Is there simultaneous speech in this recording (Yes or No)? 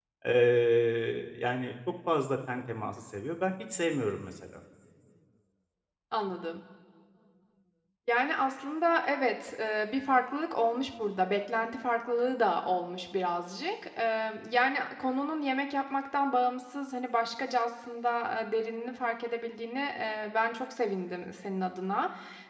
No